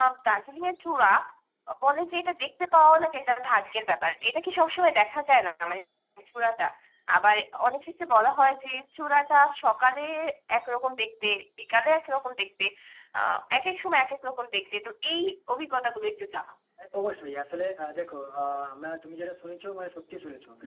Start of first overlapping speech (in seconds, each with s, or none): none